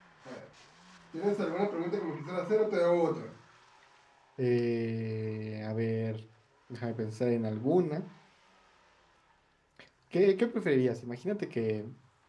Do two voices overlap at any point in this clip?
No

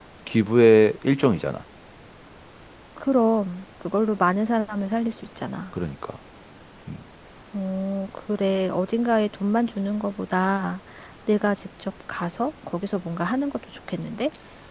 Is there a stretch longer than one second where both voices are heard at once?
No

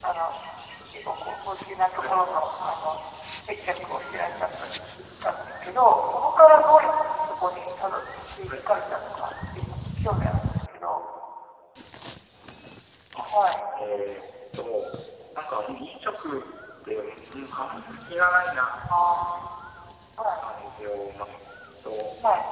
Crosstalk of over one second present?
No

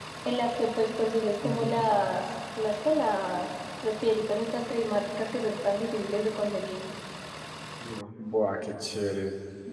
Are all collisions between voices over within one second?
Yes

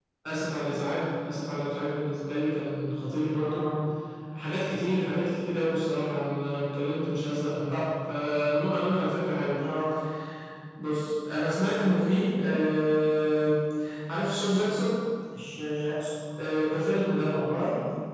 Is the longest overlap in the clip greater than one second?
No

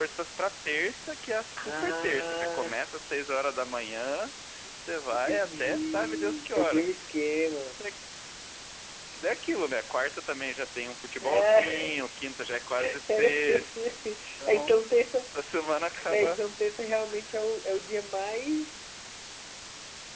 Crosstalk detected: Yes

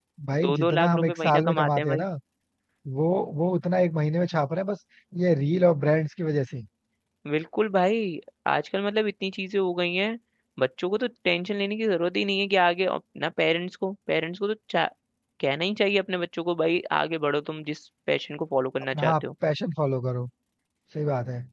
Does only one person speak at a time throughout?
No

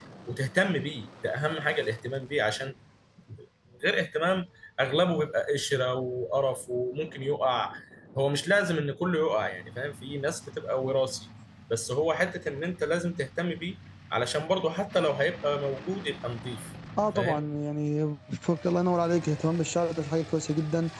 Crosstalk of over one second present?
No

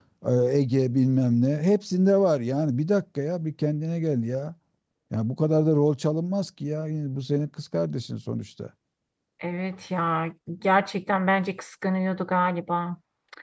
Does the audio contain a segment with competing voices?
No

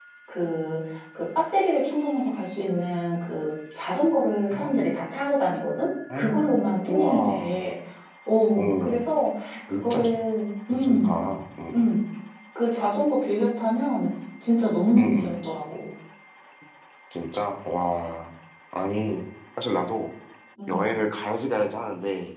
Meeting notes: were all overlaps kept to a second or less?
No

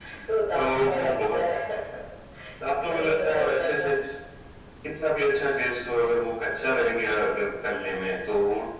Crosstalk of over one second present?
Yes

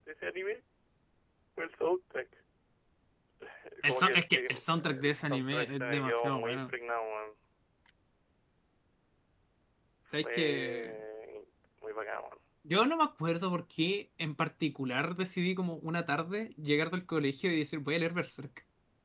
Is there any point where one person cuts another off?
Yes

